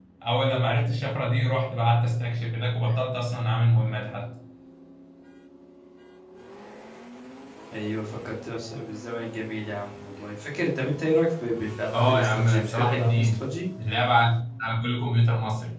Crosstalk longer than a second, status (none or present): present